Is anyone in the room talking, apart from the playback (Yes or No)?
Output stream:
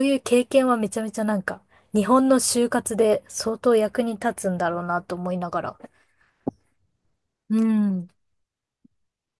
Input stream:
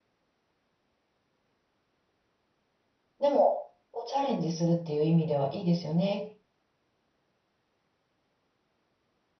Yes